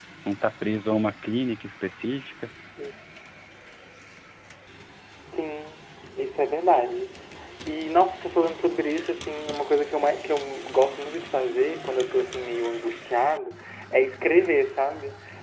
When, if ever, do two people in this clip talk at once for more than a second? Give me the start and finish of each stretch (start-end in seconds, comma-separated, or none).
none